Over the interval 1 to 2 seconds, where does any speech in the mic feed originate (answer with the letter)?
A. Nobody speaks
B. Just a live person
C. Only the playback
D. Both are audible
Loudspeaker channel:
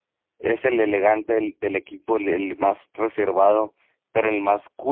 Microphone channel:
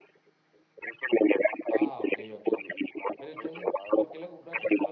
D